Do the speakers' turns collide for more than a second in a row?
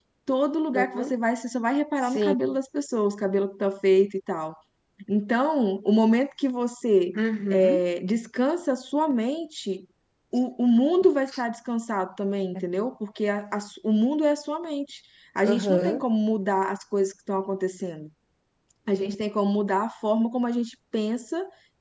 No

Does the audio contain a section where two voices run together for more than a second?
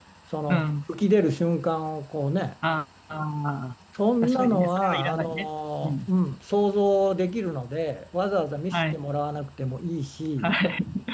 Yes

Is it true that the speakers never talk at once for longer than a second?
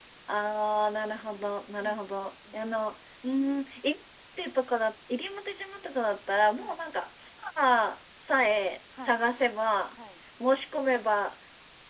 Yes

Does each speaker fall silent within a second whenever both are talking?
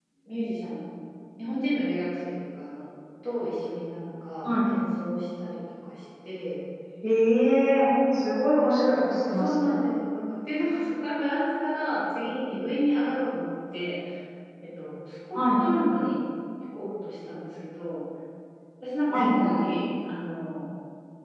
Yes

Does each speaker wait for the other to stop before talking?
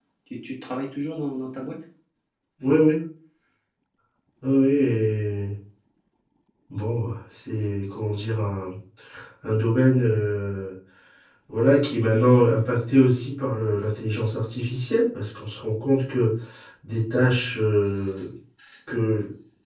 Yes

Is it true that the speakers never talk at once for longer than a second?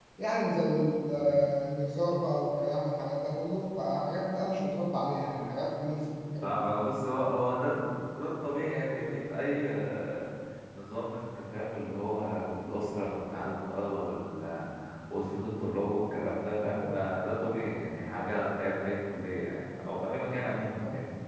Yes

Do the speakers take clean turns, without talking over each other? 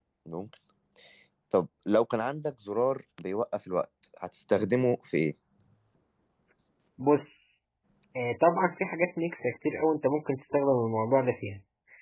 Yes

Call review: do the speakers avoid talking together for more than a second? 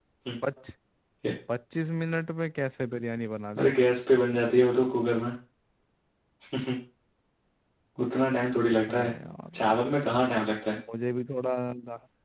Yes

